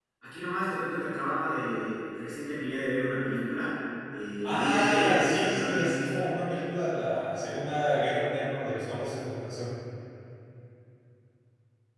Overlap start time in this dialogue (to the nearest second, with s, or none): 4 s